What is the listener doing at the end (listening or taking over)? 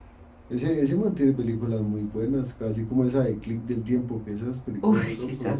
taking over